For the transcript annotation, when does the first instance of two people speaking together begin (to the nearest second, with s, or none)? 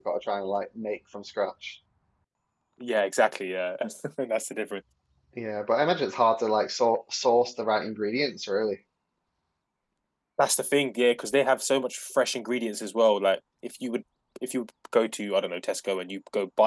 none